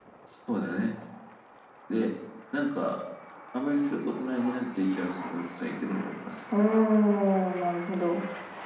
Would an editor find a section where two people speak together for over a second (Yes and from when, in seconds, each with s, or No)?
No